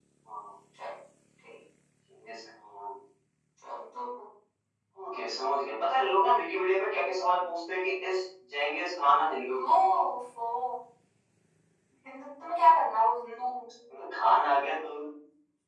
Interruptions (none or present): none